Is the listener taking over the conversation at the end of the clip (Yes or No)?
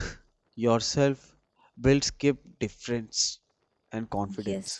Yes